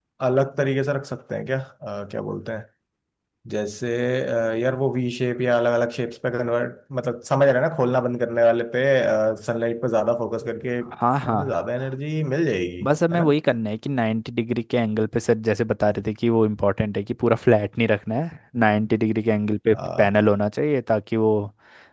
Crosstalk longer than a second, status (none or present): none